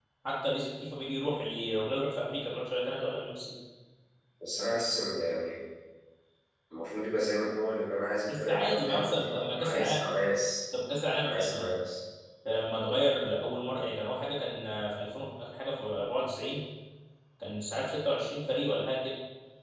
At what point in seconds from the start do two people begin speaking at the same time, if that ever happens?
8.3 s

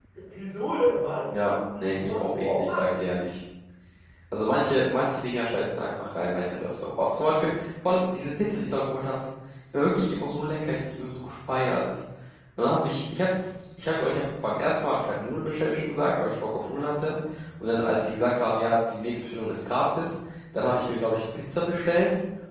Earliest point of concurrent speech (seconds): 1.8 s

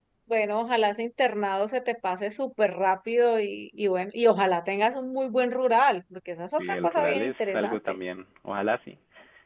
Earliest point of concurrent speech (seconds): 6.6 s

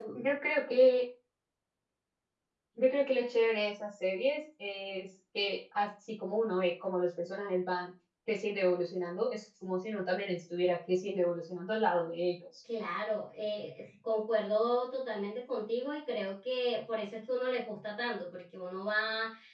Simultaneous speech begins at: none

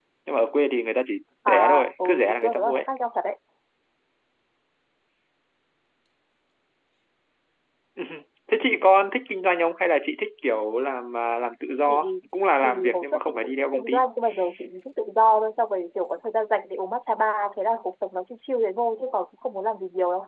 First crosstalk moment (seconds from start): 1.5 s

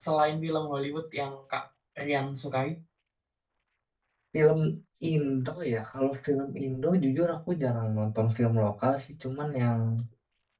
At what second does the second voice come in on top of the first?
none

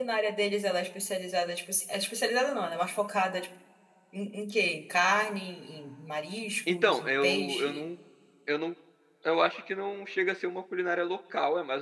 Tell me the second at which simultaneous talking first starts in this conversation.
6.7 s

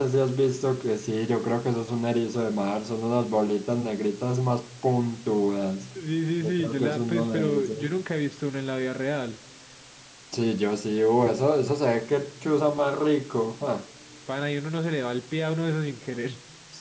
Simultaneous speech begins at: 6.4 s

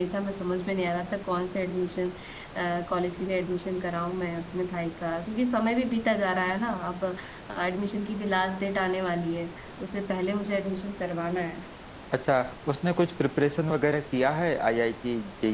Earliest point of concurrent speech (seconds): none

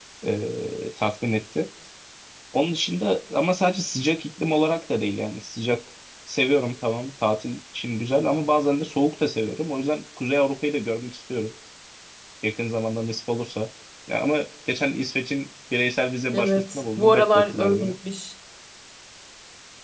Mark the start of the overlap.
16.3 s

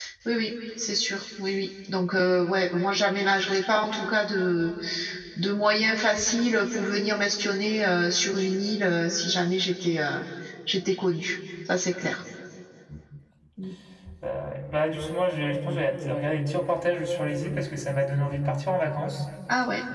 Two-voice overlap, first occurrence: none

